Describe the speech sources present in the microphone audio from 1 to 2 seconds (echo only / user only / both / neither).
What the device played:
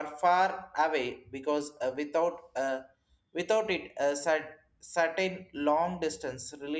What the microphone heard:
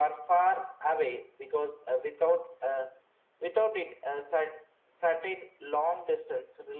echo only